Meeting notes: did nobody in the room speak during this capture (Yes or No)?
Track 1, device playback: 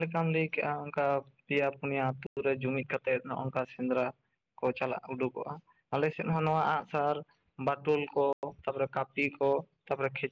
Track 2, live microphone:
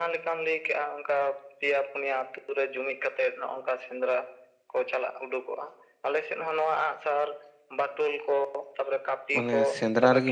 No